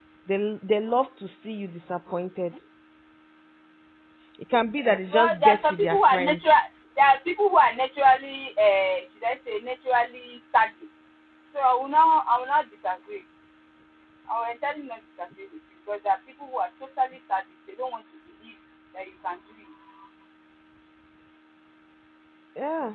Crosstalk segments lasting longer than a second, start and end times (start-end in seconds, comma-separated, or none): 5.1-6.4